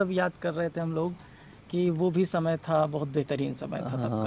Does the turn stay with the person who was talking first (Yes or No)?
No